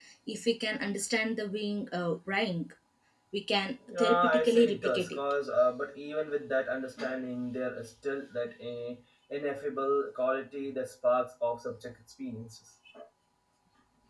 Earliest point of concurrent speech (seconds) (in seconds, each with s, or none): 4.0 s